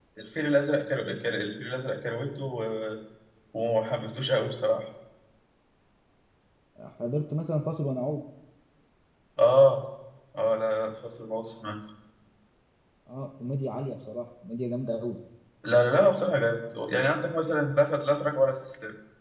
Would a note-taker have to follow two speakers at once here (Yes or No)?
No